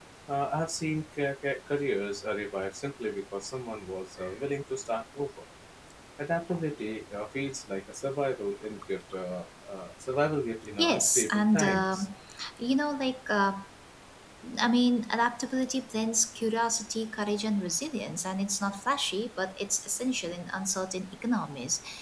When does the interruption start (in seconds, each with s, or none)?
10.8 s